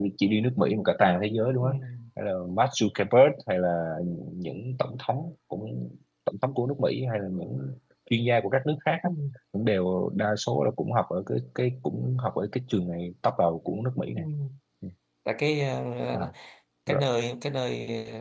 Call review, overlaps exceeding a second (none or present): none